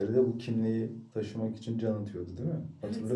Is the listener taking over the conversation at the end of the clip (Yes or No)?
Yes